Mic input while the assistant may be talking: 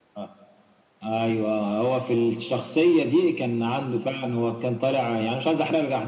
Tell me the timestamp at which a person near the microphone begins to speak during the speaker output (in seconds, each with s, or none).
none